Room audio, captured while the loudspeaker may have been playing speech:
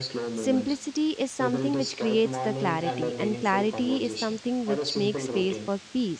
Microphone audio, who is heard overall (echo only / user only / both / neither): both